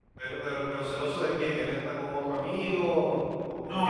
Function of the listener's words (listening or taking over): taking over